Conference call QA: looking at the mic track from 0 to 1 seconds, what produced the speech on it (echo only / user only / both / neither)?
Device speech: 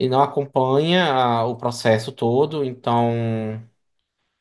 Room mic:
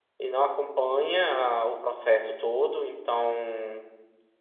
echo only